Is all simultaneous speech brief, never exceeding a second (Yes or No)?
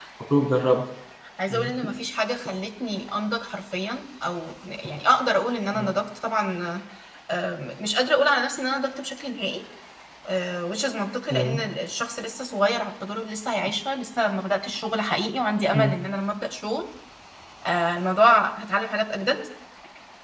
Yes